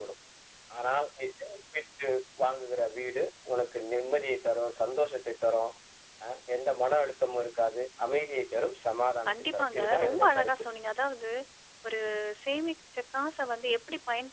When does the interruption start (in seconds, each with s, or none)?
9.2 s